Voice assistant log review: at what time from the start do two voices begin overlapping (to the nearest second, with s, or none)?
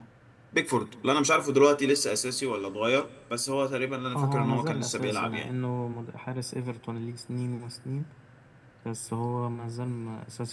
4 s